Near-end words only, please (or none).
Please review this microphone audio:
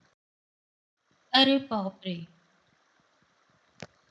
अरे बाप रे!